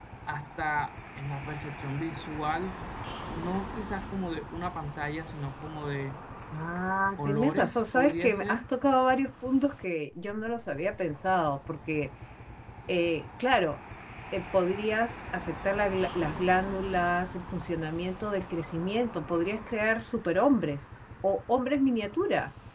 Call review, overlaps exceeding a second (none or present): present